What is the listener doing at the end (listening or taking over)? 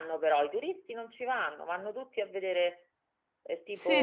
taking over